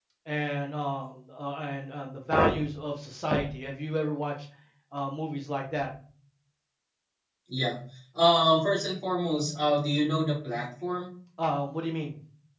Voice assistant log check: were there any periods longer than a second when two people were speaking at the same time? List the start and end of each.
none

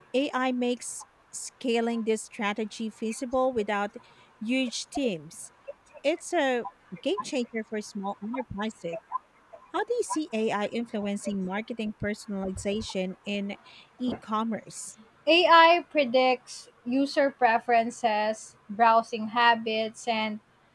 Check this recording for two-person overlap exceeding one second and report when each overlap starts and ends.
none

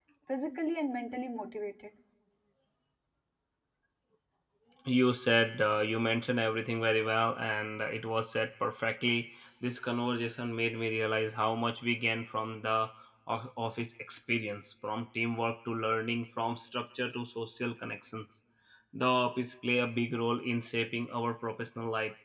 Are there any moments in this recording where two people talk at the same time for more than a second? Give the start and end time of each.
none

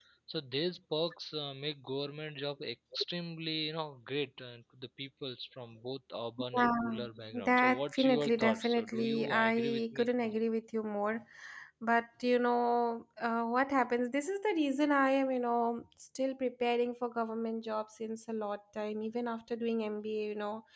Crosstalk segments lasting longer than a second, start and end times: 7.4-10.1

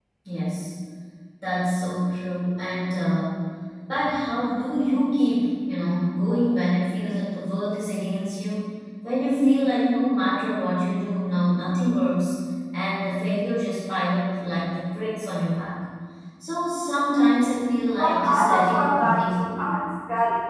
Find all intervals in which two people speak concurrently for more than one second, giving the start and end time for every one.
18.0-19.6

